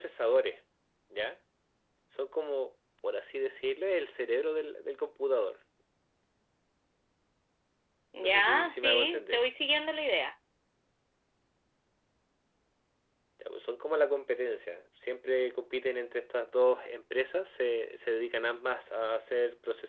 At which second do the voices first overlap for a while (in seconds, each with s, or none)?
8.2 s